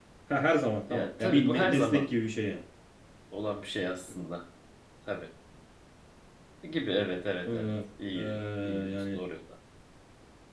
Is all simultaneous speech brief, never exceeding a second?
No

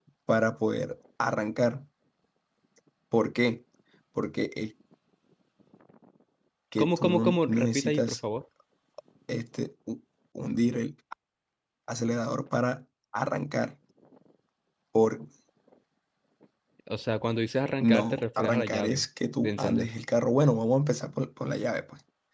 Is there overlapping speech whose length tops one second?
Yes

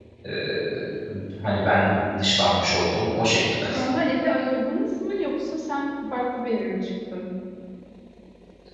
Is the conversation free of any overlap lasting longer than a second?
Yes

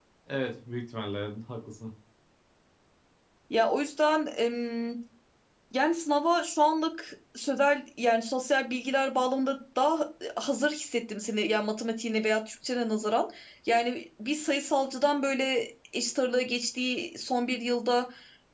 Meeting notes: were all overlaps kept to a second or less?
Yes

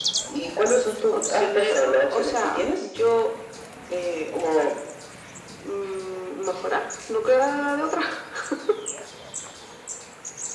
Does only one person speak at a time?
No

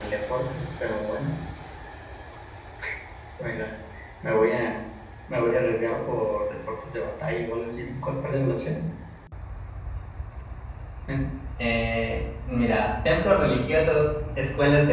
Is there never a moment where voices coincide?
Yes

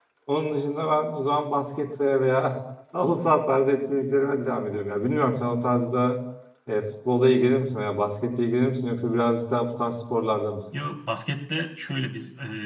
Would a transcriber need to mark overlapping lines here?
No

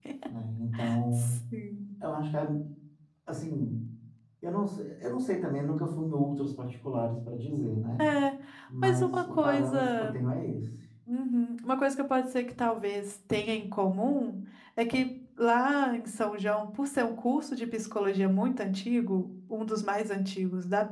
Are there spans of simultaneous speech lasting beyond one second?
Yes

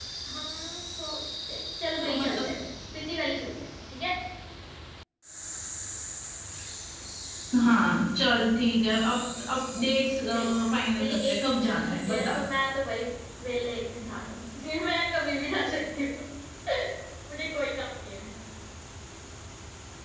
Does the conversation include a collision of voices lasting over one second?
Yes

